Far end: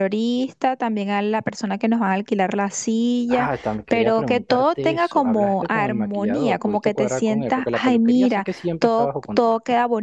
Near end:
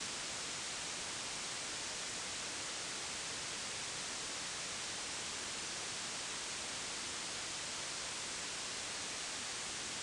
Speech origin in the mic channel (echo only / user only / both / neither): neither